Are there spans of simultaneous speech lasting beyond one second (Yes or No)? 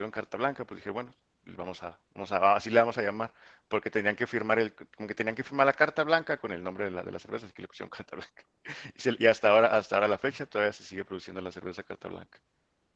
No